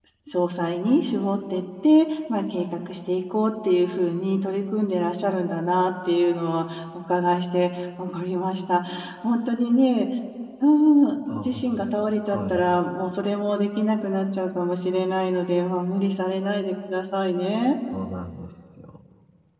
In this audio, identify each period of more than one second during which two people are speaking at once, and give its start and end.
11.3-12.6

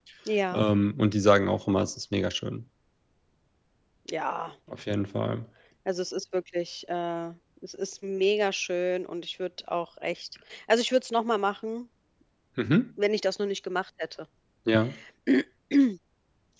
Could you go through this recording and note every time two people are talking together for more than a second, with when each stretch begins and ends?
none

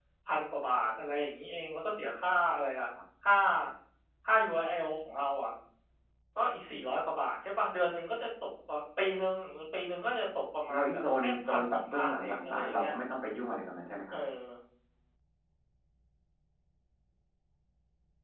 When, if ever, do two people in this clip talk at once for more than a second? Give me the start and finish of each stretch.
10.7-12.9

